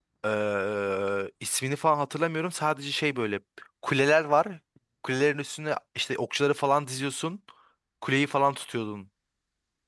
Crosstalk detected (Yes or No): No